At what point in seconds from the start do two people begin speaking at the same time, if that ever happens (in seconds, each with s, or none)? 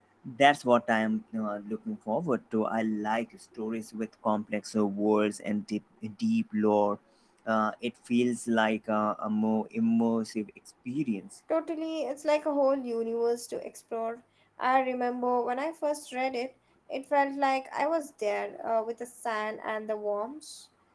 none